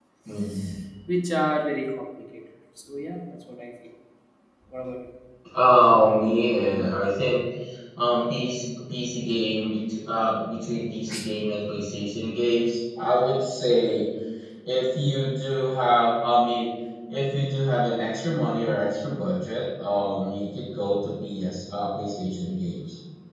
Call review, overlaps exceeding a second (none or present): none